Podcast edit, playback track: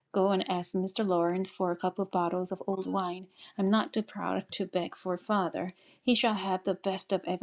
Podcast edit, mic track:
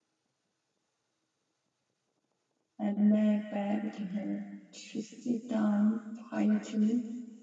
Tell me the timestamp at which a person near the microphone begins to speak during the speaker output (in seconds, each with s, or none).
2.8 s